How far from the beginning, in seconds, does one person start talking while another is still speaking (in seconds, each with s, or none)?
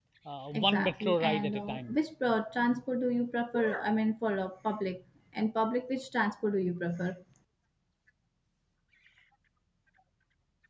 0.5 s